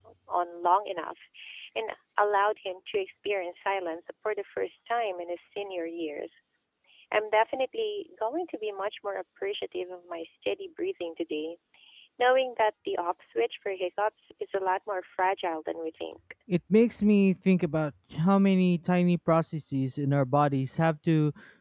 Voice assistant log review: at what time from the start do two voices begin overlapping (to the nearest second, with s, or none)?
none